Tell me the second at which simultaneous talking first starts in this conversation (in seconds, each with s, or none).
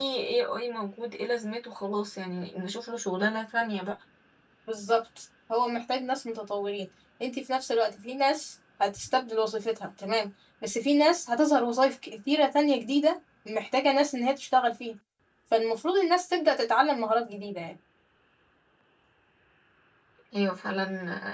none